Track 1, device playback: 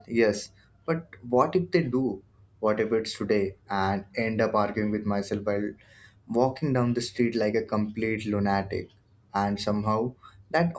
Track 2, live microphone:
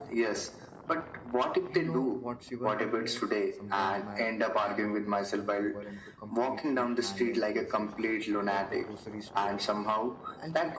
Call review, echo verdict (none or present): present